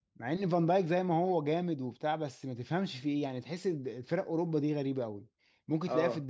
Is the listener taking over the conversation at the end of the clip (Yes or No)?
No